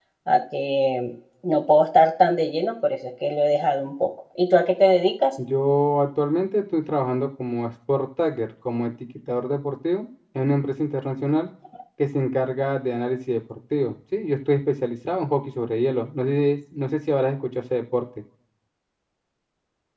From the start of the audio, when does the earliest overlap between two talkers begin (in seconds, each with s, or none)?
none